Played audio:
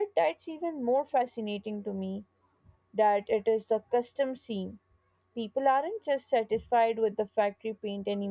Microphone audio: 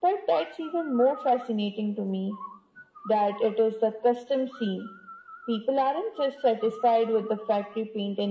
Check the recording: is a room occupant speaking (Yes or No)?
No